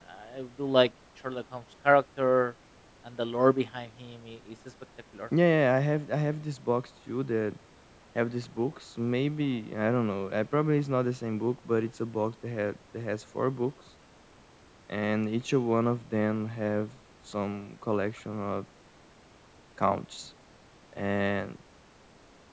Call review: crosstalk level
none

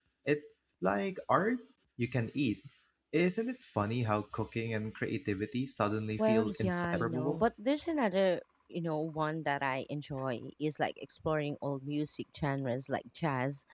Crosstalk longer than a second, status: present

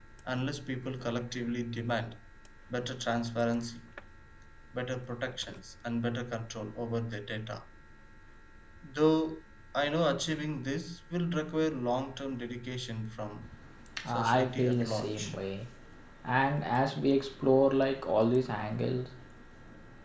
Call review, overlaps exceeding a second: present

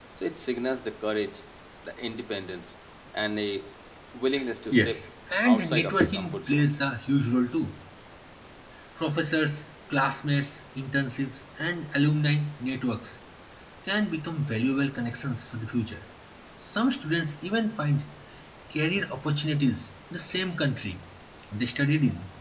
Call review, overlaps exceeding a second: present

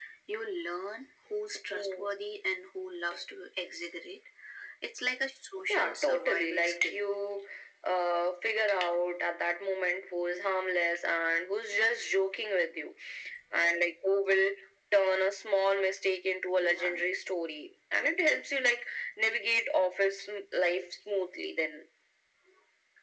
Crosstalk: present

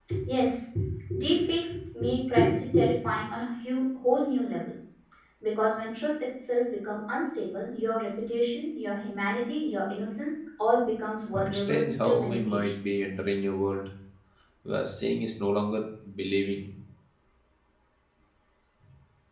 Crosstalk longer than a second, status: present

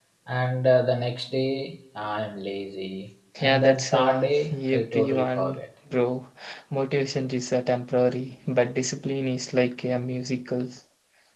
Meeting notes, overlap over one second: present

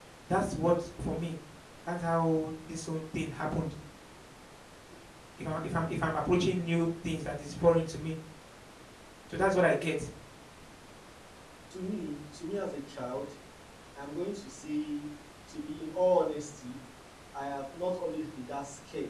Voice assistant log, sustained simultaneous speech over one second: none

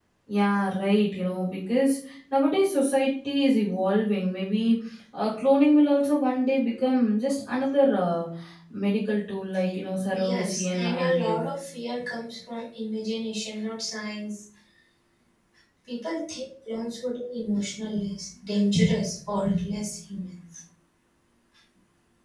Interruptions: present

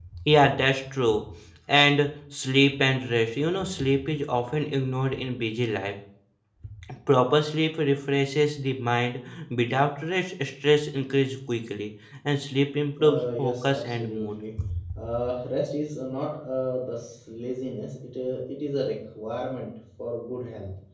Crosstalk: present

